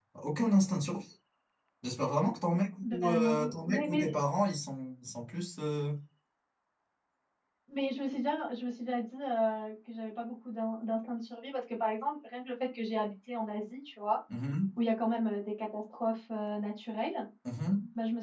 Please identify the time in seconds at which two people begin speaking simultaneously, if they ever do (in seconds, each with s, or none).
2.8 s